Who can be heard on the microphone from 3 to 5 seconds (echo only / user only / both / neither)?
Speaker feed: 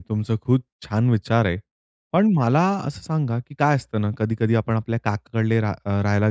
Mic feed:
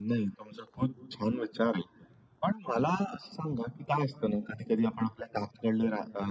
echo only